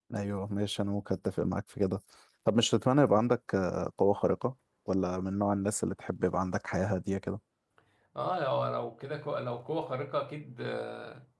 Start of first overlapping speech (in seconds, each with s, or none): none